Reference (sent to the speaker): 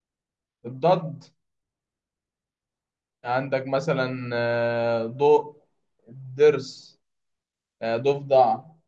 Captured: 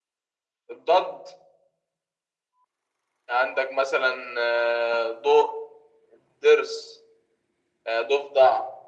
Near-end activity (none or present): none